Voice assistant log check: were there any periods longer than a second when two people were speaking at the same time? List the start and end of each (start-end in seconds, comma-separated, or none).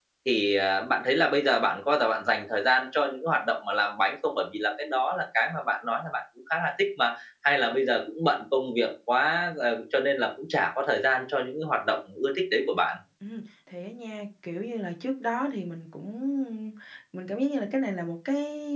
none